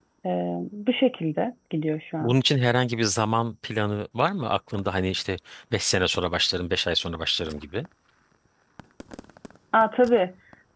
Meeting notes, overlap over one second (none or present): none